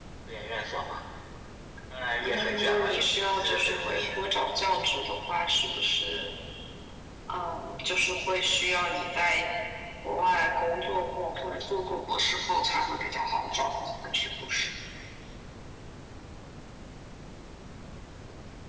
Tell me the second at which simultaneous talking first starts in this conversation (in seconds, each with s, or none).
2.2 s